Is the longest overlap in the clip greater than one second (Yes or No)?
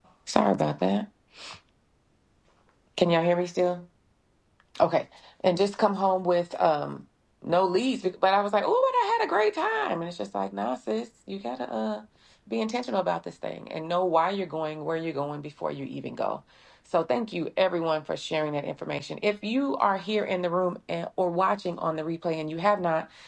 No